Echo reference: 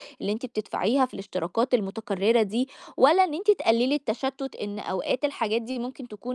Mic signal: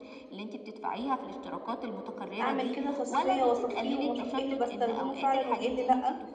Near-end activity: present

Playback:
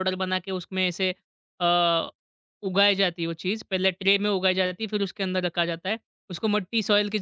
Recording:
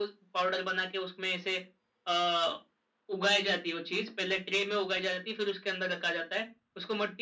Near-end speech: none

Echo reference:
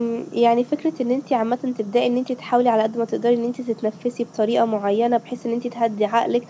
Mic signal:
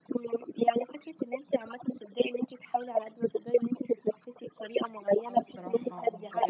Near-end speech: present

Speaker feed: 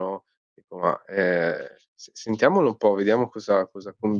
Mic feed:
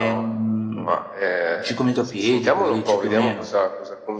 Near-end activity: present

